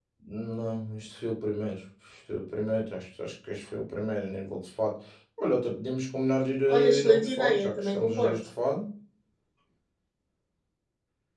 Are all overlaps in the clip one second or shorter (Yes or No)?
No